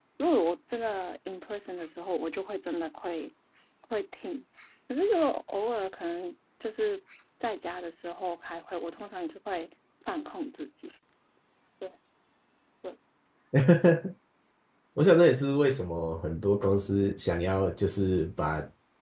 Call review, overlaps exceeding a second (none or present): none